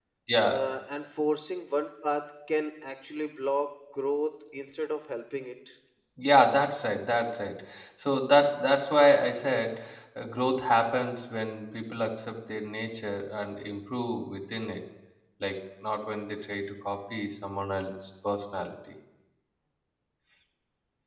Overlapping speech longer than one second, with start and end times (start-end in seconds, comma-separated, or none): none